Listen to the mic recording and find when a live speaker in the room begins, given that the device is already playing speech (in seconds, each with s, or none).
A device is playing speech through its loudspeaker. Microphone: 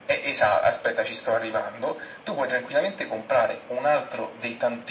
none